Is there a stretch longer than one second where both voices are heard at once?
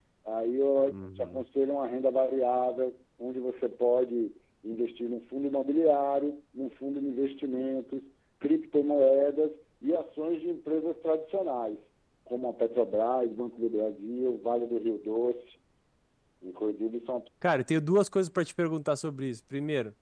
No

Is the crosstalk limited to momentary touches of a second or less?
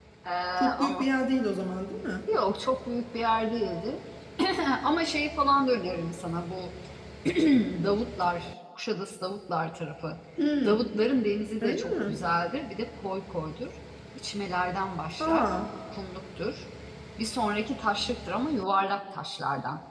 Yes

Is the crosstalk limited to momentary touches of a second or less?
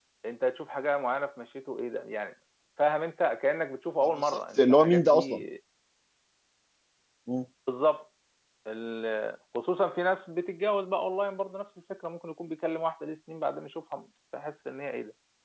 No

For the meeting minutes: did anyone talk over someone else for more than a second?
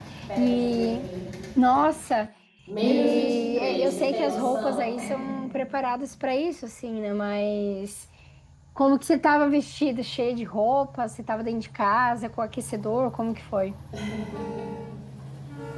Yes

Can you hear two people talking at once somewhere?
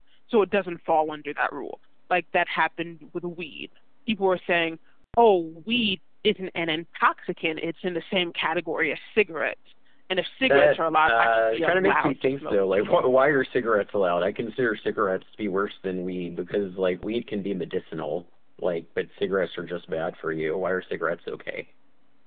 Yes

